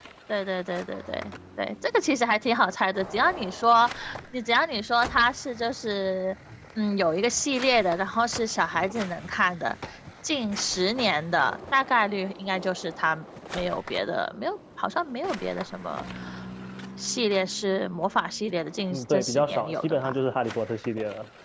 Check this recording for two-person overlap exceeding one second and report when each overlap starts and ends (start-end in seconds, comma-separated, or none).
18.9-20.1